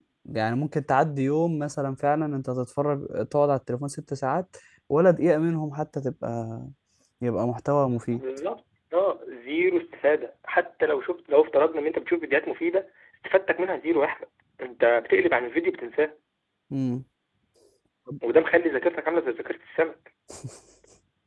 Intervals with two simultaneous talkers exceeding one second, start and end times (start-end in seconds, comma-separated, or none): none